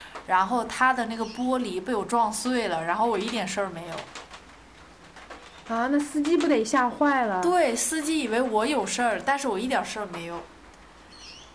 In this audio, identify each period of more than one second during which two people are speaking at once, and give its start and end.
none

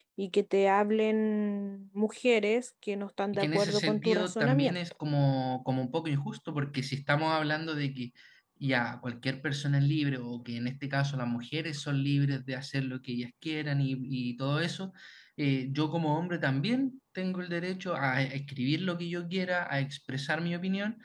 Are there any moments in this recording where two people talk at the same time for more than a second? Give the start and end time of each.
3.3-4.8

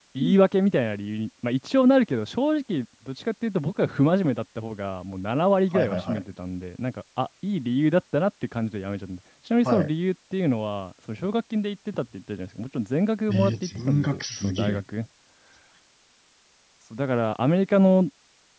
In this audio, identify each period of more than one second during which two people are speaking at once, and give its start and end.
13.3-14.8

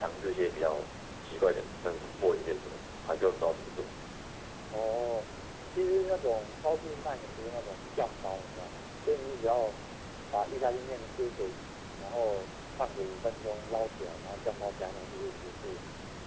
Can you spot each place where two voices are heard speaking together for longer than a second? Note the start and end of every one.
none

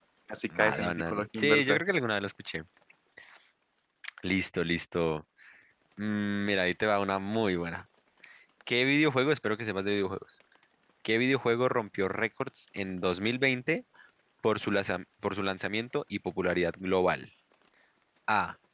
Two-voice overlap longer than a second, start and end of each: 0.6-1.8

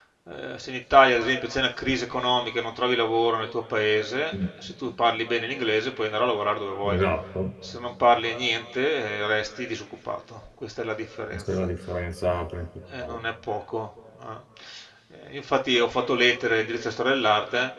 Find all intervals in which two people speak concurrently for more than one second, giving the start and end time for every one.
none

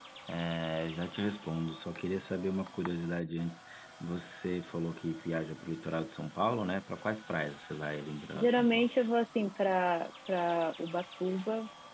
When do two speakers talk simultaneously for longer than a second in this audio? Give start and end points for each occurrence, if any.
none

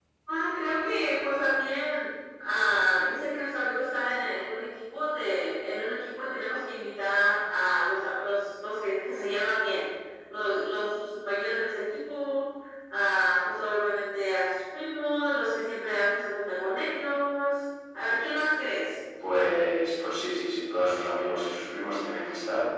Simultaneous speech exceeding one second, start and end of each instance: none

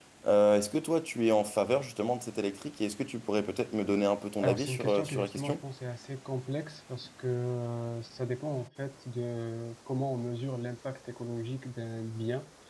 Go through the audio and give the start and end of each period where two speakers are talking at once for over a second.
4.4-5.6

